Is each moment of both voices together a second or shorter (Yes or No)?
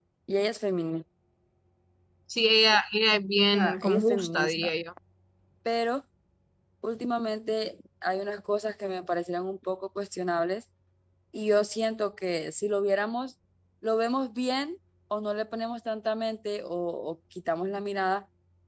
No